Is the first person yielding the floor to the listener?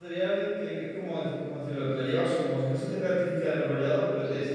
No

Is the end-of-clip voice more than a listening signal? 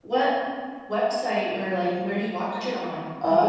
Yes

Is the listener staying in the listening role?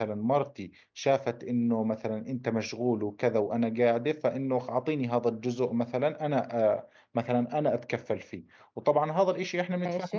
Yes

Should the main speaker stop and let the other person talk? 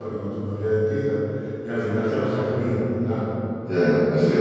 Yes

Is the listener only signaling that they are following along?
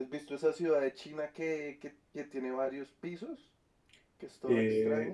No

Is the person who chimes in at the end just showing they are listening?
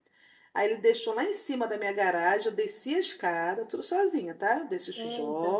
Yes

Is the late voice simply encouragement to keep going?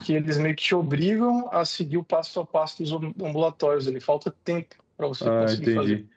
No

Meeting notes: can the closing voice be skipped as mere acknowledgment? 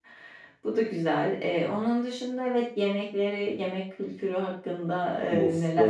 No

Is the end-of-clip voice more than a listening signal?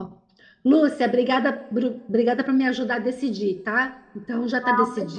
Yes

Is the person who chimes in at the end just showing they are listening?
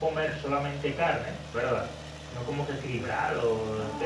No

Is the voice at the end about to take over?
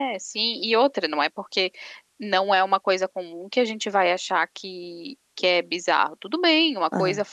No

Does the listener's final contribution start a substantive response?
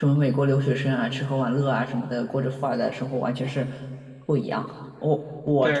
Yes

